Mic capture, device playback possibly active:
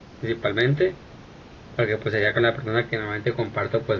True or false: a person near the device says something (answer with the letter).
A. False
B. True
B